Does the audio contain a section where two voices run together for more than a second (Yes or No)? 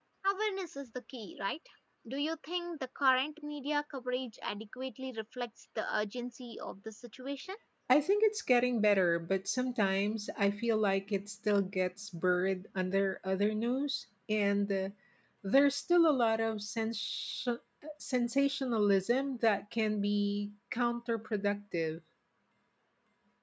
No